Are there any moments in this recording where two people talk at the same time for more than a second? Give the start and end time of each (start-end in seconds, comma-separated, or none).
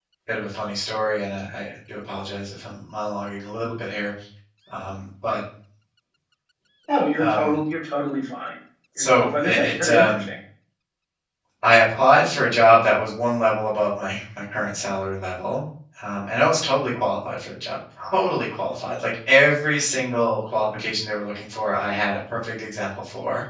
9.0-10.3